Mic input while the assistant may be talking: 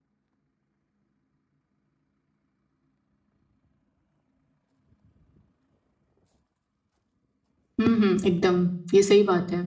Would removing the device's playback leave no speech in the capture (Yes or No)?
No